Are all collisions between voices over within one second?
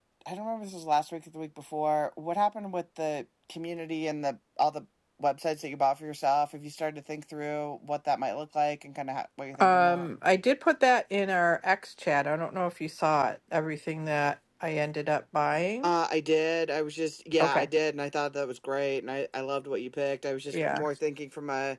Yes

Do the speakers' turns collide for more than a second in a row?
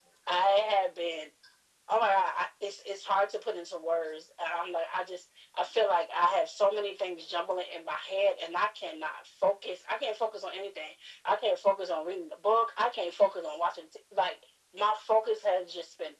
No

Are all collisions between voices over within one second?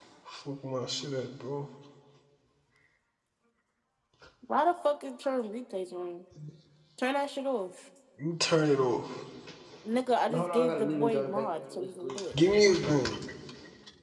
No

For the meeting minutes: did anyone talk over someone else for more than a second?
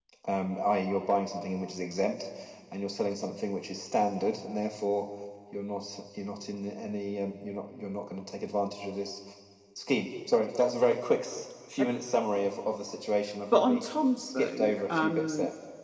Yes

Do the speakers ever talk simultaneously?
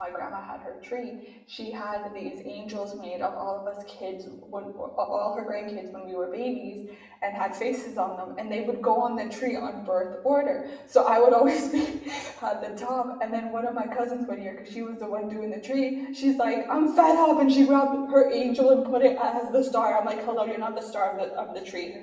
No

